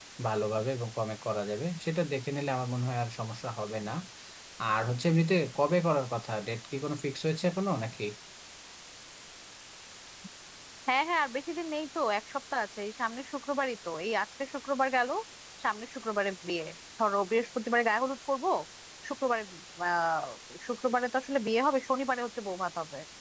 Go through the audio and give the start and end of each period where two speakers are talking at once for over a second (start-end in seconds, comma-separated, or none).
none